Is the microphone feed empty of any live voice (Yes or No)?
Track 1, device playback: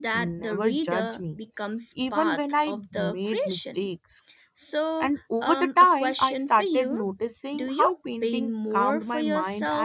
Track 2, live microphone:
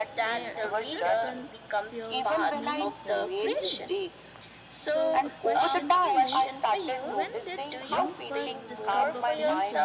No